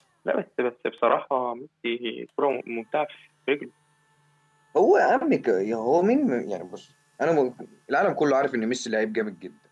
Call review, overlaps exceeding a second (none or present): none